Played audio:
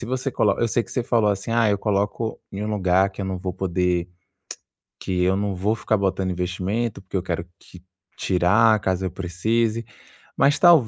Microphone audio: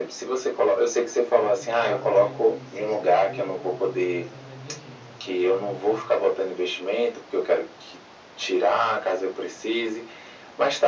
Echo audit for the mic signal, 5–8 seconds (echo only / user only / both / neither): both